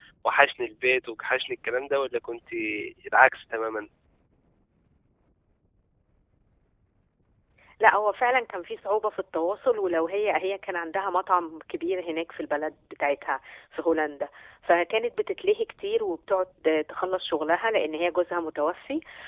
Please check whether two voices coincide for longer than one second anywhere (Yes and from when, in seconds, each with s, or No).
No